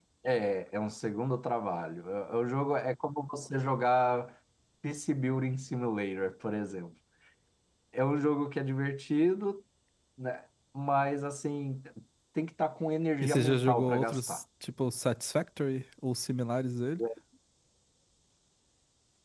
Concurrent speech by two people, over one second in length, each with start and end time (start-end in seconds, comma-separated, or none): 13.2-14.4